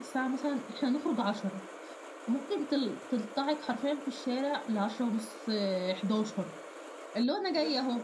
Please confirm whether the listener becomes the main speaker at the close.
No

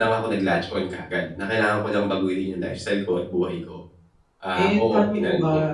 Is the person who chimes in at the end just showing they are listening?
No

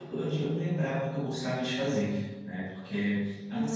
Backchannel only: No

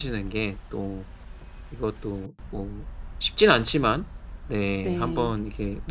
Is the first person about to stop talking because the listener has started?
No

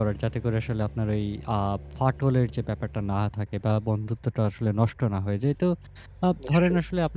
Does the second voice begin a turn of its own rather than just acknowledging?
No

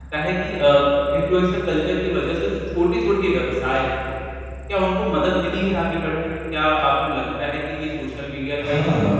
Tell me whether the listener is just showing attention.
No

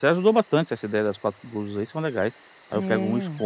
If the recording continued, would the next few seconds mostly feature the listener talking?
No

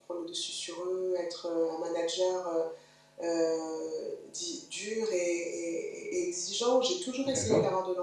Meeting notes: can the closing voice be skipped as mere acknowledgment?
Yes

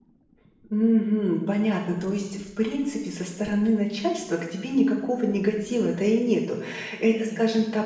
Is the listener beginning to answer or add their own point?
No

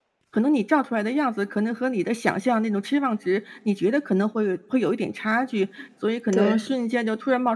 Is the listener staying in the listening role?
Yes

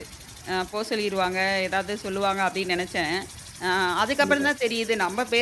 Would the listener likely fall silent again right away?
Yes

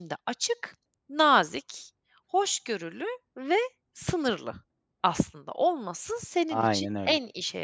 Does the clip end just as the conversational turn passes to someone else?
No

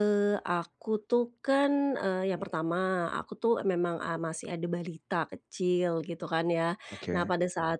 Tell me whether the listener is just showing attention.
Yes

